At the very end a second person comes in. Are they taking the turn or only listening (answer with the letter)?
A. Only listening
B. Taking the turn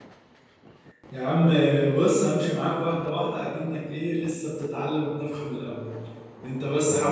A